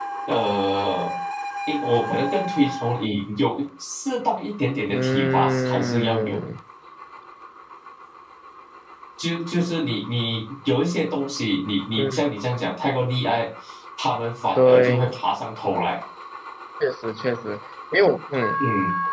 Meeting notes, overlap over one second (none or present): present